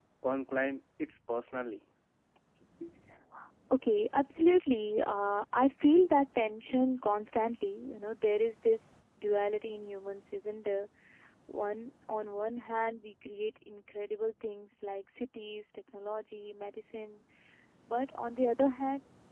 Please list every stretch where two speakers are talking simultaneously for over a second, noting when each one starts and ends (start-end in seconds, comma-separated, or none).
none